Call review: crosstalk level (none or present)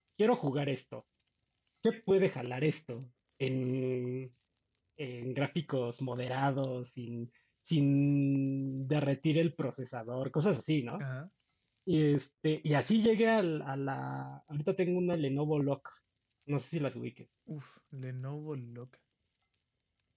none